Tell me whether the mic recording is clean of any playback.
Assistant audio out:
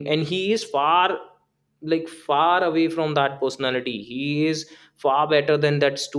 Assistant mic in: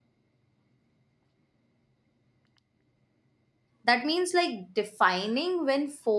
Yes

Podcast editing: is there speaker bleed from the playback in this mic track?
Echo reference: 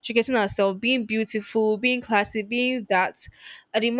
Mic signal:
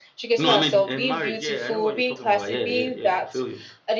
Yes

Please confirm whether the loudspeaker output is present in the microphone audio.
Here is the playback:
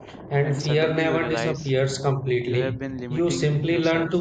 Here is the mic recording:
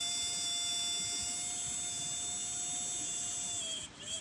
No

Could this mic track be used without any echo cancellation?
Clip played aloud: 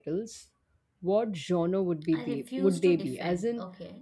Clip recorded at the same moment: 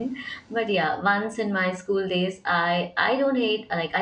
Yes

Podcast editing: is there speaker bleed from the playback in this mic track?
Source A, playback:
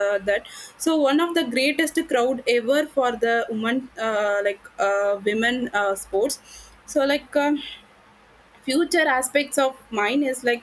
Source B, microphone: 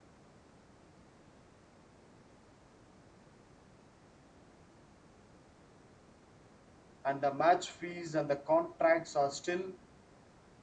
No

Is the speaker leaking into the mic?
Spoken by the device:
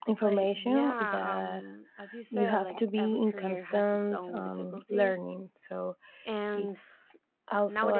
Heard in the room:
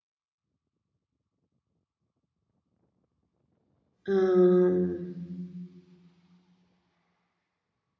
No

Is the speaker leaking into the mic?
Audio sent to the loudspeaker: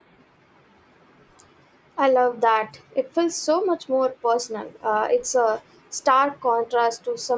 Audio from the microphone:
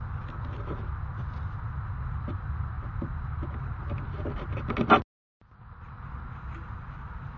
No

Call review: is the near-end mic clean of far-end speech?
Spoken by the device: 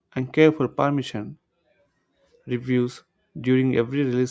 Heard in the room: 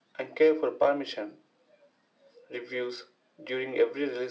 No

